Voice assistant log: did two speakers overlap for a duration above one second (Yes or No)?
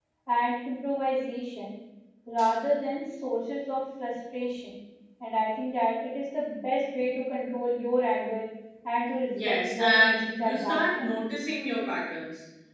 Yes